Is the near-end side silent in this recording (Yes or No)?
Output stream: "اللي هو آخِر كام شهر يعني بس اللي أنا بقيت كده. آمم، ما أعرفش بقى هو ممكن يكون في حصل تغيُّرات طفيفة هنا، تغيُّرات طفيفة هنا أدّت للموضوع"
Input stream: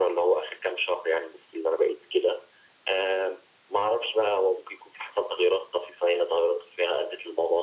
Yes